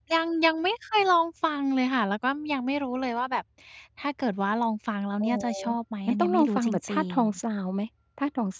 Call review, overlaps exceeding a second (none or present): present